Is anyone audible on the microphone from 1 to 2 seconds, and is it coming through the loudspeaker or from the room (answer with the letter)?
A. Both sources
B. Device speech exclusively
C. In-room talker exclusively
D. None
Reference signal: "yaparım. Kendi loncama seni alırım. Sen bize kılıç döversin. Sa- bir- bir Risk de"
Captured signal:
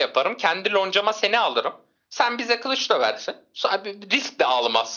B